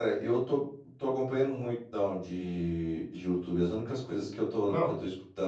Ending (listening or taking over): listening